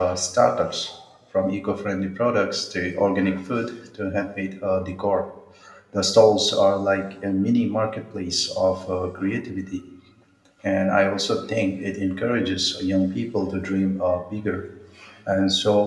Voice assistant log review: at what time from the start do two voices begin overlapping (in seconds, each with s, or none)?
none